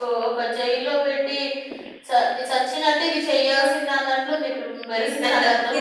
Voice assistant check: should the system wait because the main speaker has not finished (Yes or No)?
No